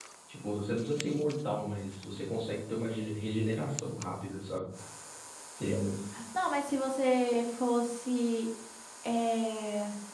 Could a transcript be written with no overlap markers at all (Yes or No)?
Yes